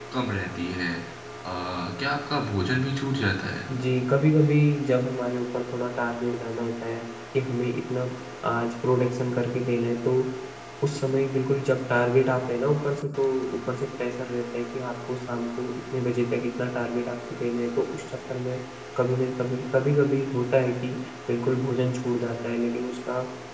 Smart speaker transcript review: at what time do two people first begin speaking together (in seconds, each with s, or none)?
none